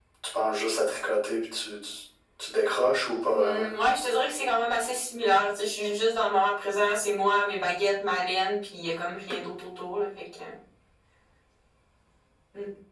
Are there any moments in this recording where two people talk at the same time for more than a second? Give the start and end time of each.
none

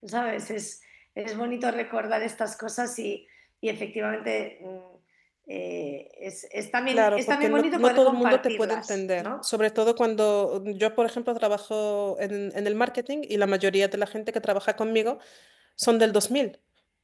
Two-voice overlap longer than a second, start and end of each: 6.9-9.5

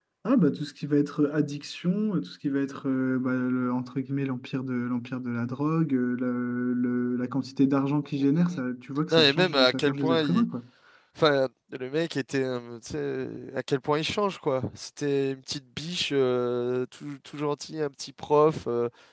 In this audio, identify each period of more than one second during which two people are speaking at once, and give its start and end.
9.1-10.4

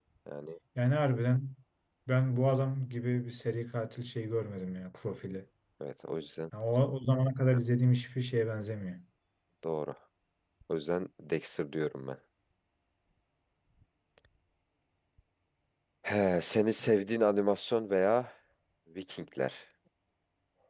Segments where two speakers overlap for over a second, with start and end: none

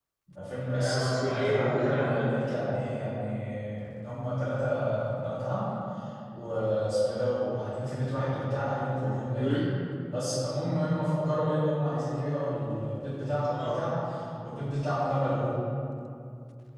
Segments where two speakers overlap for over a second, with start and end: 0.7-2.4

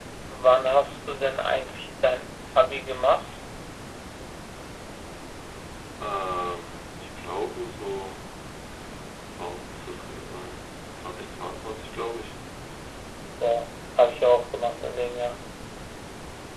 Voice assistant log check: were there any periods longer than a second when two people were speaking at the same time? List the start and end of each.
none

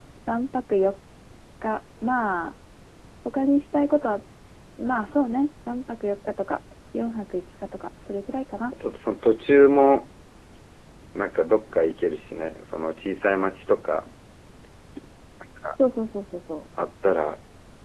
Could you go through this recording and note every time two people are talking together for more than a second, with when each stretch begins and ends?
none

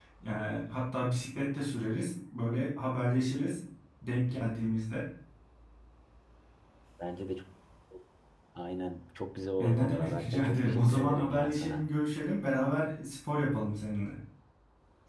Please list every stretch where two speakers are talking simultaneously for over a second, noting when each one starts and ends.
9.6-11.8

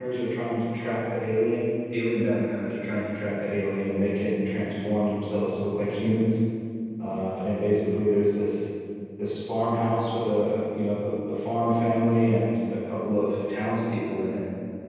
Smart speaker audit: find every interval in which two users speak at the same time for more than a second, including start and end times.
none

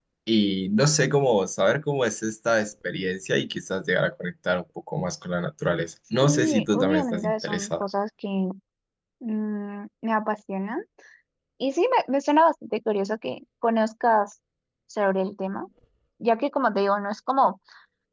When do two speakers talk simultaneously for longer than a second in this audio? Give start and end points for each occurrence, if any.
6.2-7.8

